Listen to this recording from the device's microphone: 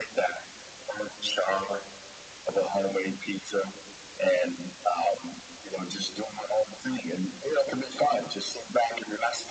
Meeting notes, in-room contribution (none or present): none